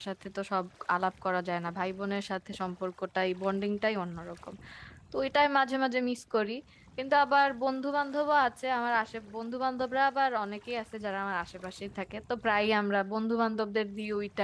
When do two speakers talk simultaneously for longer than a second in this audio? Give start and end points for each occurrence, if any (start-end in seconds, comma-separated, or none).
none